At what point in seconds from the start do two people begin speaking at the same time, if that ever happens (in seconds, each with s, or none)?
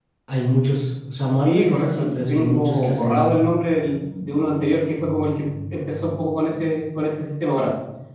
1.4 s